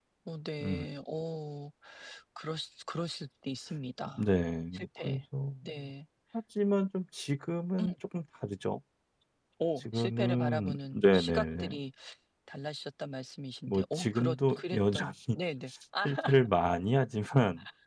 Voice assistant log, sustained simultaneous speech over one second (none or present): present